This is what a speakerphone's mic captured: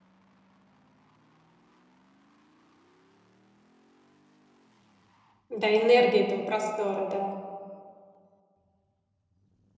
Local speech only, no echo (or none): Да, энергия этого простора, да.